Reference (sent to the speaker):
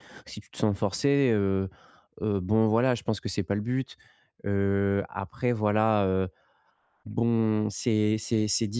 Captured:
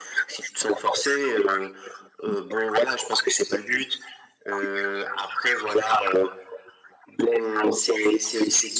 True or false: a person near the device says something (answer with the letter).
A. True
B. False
B